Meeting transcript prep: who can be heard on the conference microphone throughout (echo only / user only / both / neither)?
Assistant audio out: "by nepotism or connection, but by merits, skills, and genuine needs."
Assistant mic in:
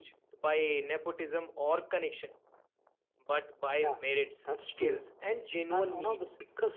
both